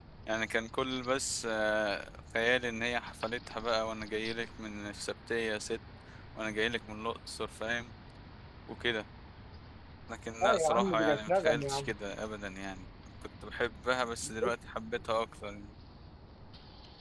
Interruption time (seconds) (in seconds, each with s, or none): 10.4 s